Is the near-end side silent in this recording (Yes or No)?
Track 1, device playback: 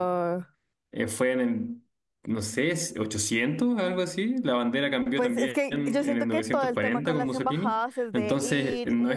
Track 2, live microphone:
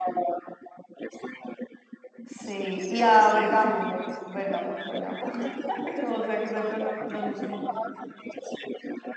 No